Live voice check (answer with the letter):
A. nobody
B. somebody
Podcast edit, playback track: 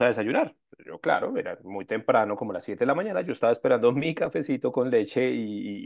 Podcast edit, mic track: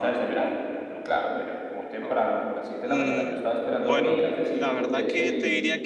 B